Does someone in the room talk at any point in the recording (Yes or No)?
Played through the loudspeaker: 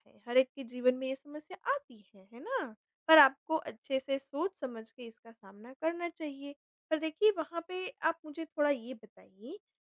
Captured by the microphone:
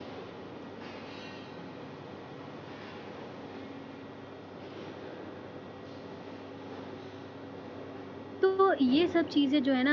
Yes